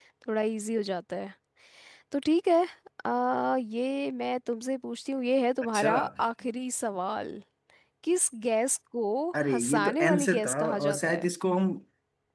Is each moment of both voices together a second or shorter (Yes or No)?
No